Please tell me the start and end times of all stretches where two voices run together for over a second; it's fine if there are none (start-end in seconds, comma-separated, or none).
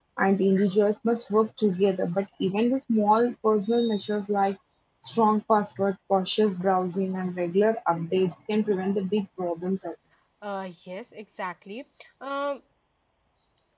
none